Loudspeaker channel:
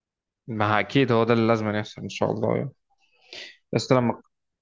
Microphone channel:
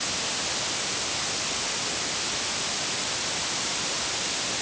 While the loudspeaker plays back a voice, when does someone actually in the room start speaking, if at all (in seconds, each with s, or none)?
none